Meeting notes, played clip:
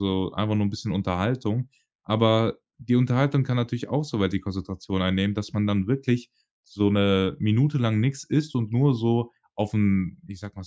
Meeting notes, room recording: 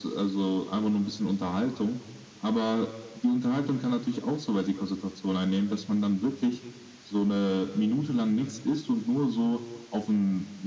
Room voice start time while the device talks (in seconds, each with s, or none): none